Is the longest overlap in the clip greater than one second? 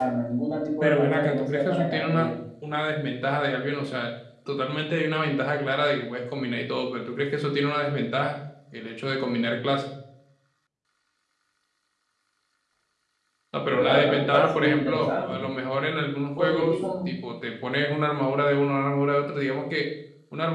Yes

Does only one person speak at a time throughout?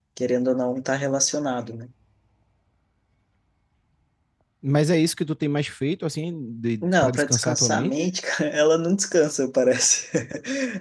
No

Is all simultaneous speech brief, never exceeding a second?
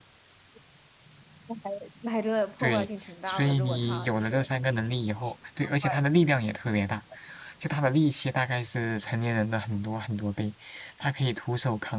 No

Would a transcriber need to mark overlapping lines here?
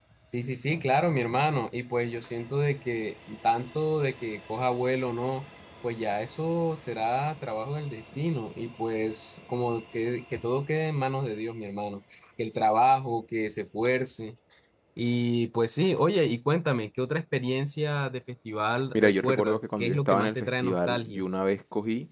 Yes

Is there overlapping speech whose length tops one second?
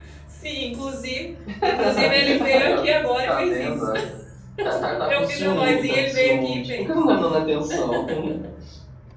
Yes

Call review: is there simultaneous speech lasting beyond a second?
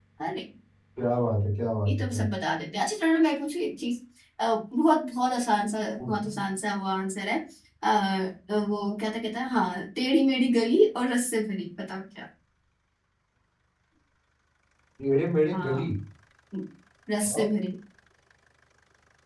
No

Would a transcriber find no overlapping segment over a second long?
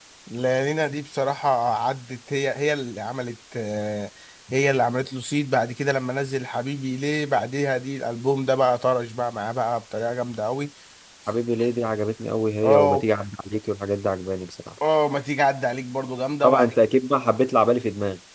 Yes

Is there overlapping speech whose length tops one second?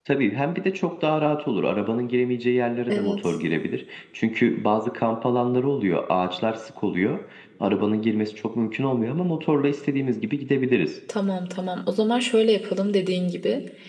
No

